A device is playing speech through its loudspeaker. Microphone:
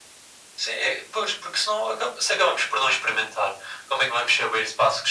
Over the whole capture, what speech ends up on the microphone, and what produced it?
echo only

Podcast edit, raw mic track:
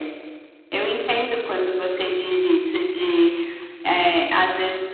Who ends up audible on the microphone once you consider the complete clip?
echo only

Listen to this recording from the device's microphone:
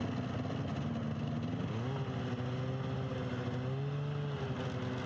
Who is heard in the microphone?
neither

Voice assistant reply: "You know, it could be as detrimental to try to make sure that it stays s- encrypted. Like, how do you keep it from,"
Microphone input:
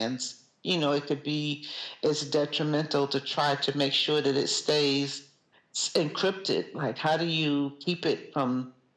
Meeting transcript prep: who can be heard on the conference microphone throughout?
echo only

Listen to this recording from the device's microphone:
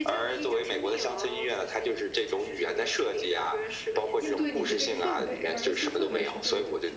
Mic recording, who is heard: both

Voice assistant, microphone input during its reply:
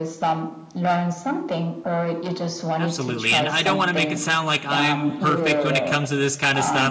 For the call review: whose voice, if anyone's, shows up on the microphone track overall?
both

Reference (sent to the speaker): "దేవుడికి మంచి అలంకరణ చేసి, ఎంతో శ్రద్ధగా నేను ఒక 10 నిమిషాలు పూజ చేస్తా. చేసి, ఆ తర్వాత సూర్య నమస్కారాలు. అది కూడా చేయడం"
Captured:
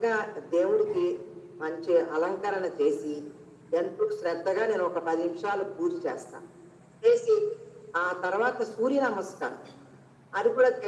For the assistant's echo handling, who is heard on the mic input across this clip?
echo only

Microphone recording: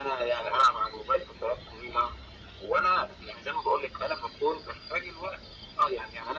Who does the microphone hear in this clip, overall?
echo only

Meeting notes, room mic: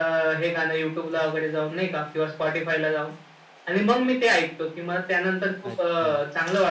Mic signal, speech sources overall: both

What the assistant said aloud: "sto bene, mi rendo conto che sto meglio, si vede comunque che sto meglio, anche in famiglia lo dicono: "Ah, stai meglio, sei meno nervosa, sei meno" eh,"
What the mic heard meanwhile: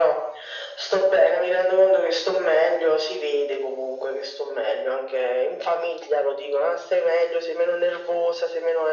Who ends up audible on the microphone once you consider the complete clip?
echo only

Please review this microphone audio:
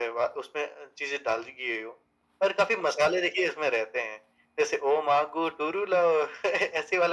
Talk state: echo only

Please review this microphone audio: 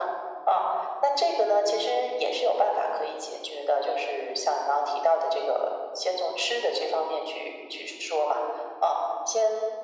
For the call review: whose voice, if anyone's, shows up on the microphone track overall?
echo only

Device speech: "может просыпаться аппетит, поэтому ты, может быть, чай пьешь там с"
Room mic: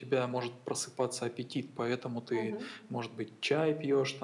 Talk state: both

